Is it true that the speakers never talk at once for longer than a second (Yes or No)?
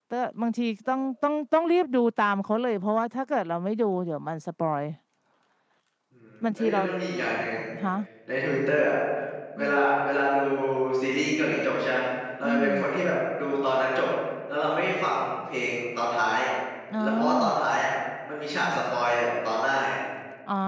Yes